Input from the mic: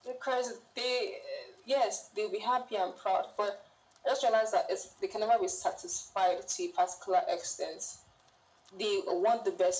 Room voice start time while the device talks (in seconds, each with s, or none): none